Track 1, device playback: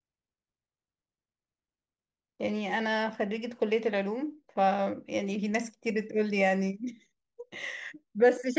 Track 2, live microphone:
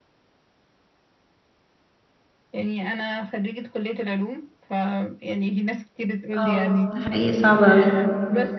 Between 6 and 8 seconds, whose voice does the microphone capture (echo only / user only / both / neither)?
both